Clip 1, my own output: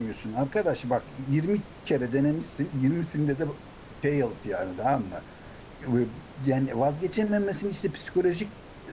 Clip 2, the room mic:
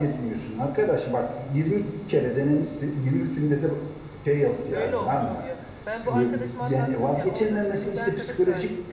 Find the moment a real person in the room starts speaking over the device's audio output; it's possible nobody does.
4.7 s

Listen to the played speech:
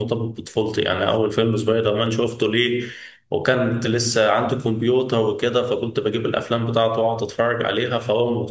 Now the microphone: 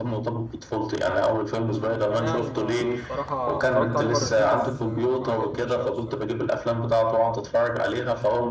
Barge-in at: 1.7 s

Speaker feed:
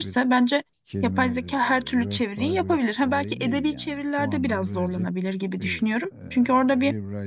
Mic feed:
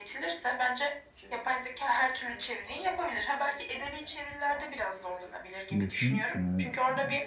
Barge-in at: 5.7 s

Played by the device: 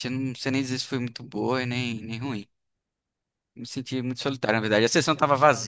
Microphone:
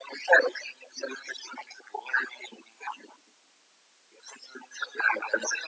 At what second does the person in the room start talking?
none

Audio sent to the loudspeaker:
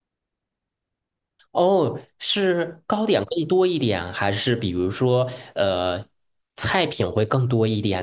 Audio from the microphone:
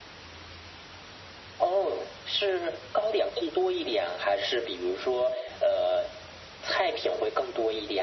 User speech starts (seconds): none

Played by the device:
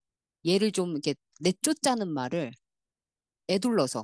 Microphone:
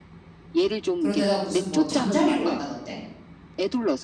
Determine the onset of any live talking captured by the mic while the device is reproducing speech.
1.0 s

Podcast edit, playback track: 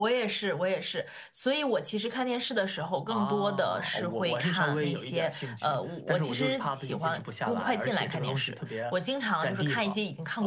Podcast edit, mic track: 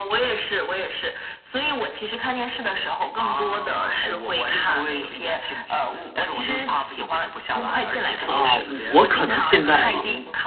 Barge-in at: 8.2 s

